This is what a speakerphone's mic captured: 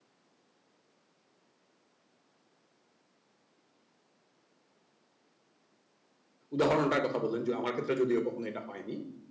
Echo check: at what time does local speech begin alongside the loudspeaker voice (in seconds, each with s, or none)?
6.5 s